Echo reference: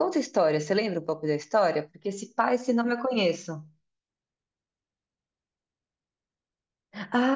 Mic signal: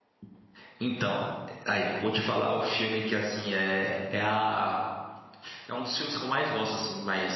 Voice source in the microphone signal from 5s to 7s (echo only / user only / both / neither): user only